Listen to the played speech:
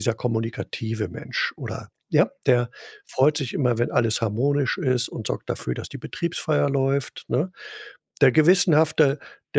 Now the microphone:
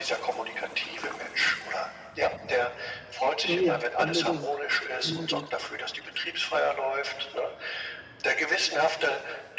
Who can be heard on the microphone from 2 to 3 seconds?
echo only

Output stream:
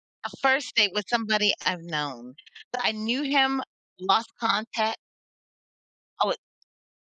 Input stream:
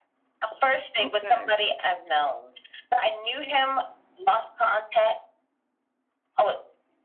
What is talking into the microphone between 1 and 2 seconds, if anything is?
both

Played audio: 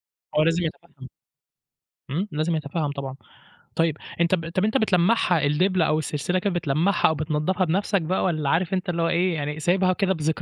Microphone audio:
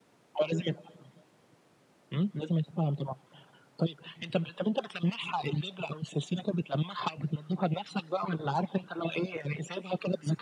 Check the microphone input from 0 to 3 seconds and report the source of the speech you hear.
echo only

